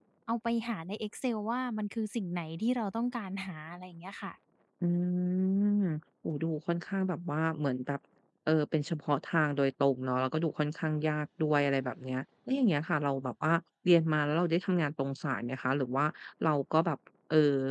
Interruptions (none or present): none